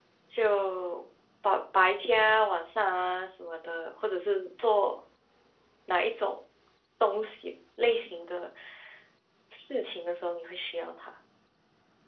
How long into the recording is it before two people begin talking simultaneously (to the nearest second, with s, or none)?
none